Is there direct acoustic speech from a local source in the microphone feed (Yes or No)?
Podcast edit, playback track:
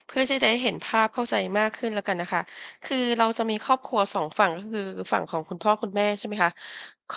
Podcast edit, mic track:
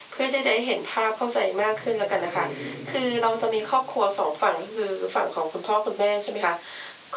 Yes